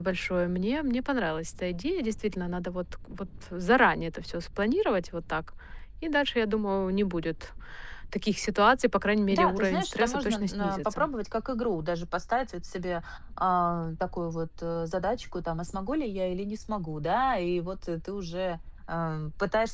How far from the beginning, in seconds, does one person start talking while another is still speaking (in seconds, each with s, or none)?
9.3 s